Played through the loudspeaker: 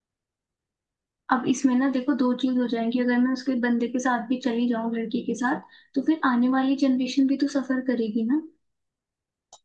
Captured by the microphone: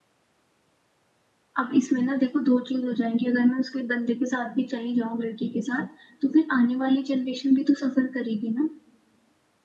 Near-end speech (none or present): none